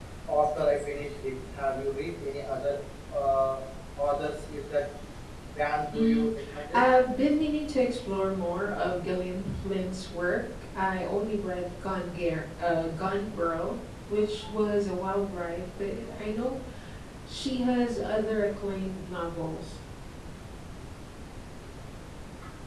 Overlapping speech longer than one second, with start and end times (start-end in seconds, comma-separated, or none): none